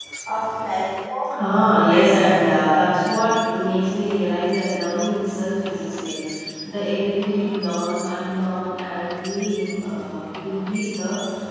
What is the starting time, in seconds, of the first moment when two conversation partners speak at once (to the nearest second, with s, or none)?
1 s